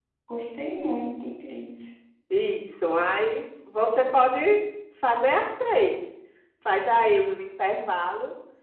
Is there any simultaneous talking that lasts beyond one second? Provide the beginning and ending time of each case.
none

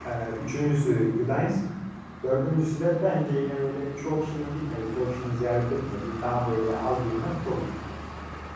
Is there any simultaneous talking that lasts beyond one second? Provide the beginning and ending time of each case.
none

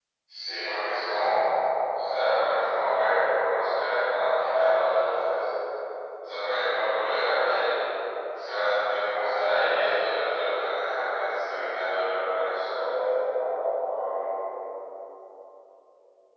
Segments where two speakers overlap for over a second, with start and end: none

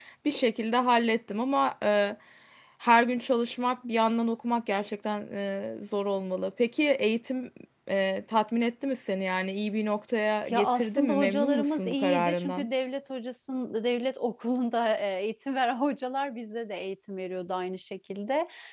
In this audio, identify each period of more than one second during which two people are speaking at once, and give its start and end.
10.5-12.7

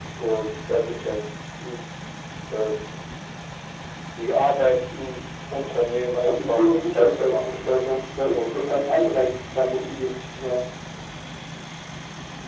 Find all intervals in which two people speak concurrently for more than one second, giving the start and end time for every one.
6.2-7.6

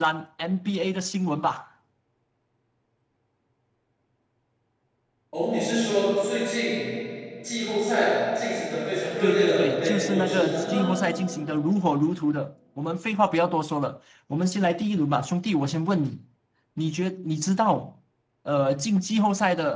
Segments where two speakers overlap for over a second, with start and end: 9.2-10.9

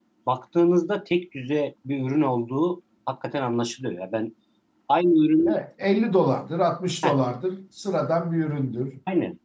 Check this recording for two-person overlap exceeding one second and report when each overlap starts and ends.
none

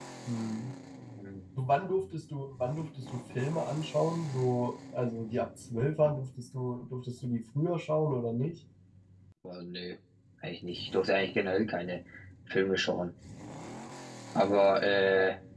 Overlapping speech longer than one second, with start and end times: none

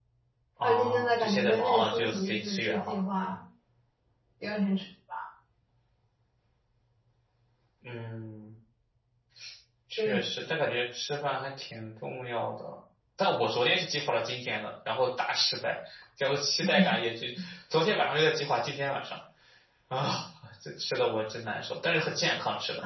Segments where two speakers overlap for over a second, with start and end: 0.6-2.9

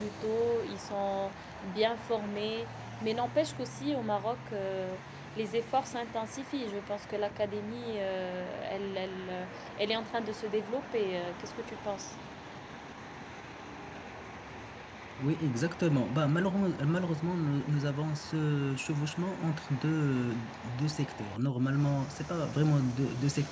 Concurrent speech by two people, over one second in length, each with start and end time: none

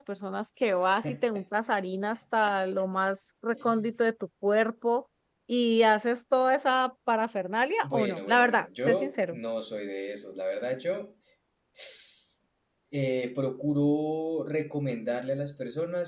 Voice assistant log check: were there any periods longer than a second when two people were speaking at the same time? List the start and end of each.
7.8-9.4

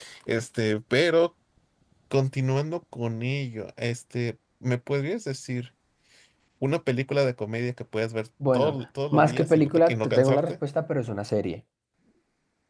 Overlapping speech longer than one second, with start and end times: 9.1-10.6

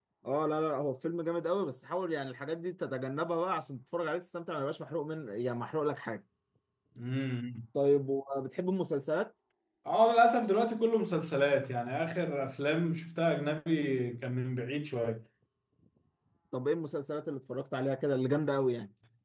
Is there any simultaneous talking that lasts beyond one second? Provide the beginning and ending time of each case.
none

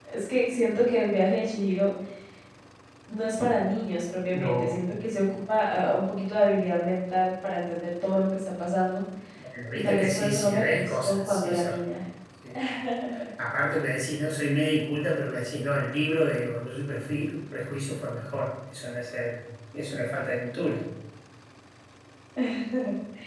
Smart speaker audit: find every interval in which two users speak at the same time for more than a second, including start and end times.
9.8-11.8

